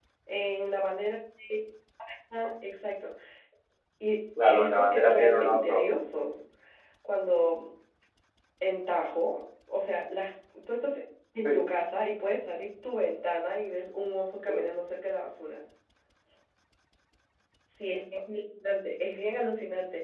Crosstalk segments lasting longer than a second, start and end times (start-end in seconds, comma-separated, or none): 4.5-5.9